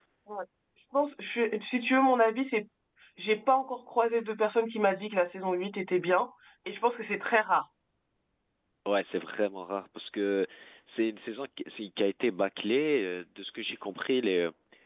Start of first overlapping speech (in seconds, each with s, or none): none